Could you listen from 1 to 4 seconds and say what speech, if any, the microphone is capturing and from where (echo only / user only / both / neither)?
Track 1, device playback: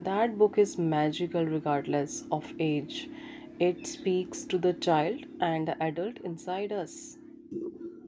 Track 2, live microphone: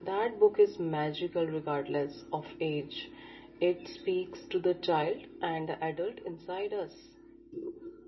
echo only